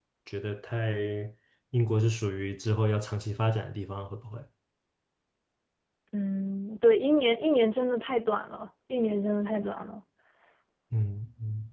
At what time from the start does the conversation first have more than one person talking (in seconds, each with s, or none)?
none